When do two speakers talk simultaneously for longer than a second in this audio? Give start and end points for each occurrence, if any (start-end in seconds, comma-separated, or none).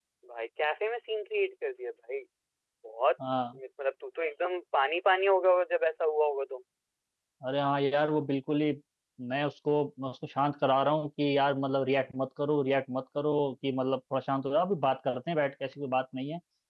none